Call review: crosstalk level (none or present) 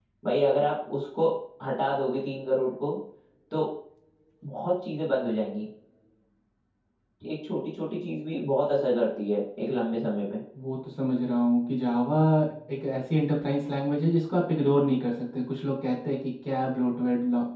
none